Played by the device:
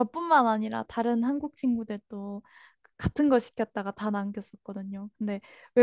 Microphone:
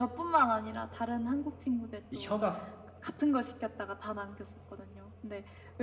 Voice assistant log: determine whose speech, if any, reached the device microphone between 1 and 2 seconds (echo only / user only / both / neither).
echo only